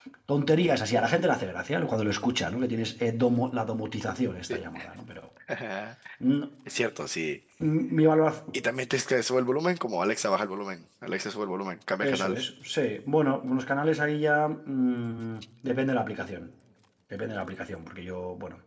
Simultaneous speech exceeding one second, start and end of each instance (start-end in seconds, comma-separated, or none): none